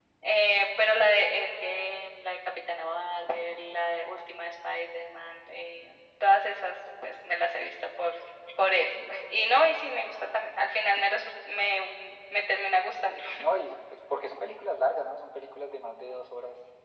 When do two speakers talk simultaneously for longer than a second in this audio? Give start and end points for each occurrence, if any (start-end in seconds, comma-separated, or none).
none